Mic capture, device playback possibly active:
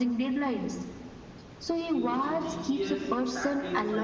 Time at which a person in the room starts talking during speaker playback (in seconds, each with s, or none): 1.9 s